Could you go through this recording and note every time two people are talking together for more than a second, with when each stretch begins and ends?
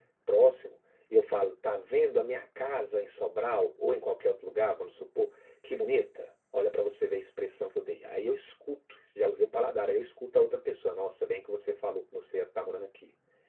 none

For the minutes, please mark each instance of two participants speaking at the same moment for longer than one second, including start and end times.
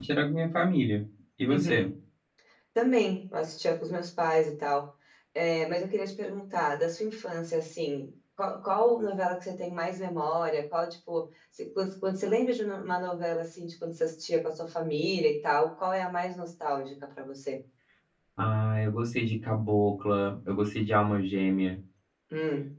none

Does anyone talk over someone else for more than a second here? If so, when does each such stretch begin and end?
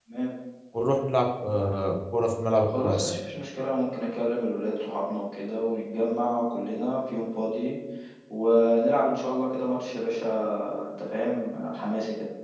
none

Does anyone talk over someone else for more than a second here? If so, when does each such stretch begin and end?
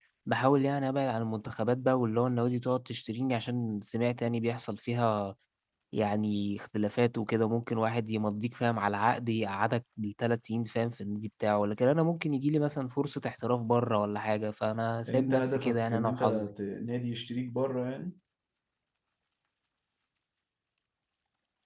15.1-16.4

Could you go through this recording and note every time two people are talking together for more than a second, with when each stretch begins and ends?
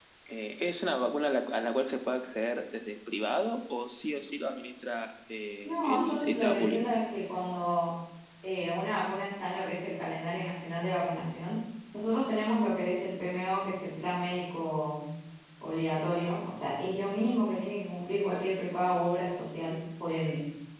5.6-6.9

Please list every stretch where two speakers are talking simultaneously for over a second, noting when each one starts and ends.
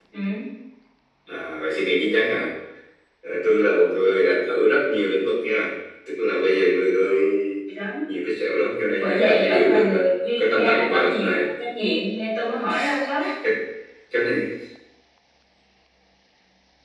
9.0-11.4

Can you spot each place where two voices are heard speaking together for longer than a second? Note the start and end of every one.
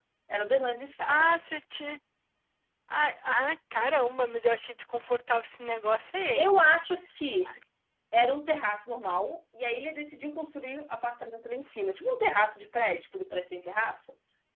none

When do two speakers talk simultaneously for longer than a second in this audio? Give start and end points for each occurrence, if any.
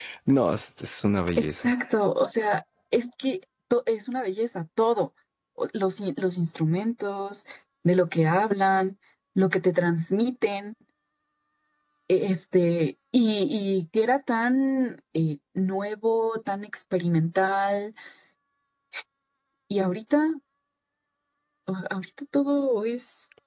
none

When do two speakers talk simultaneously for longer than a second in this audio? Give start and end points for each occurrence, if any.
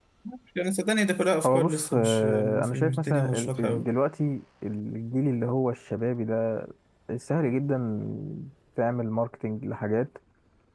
1.4-3.9

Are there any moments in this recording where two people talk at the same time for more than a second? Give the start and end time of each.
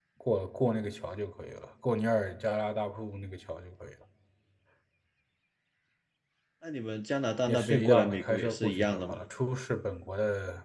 7.5-9.2

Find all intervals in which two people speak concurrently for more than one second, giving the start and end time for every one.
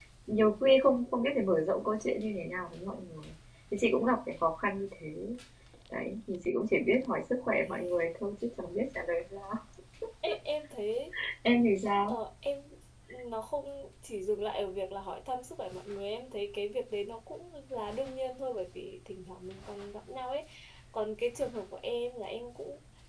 none

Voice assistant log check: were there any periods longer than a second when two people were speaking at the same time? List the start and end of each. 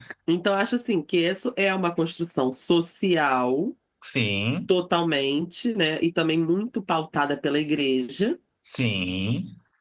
none

